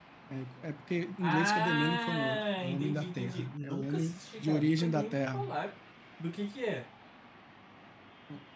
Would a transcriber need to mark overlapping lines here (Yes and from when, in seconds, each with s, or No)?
Yes, from 1.2 s